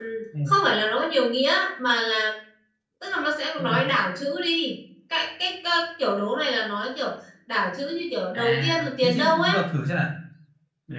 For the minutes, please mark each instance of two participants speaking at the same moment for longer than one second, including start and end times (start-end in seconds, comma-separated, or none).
8.3-9.6